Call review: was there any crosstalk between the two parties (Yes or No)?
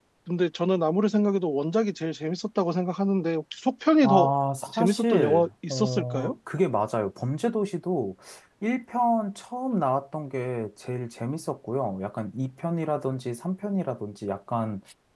Yes